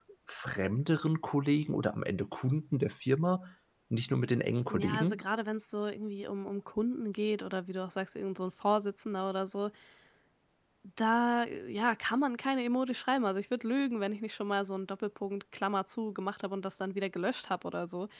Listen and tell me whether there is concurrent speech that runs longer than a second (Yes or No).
No